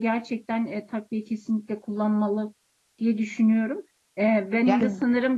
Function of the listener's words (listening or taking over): listening